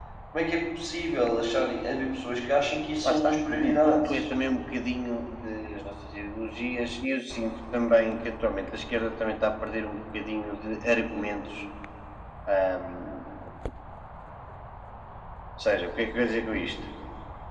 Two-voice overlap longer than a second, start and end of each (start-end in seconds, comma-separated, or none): 3.0-4.3